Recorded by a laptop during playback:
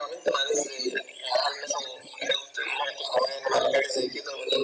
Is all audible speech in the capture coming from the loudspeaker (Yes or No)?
Yes